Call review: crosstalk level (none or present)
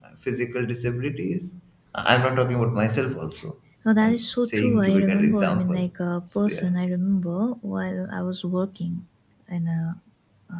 present